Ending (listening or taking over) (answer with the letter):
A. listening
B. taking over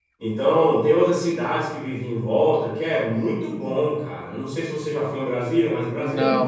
B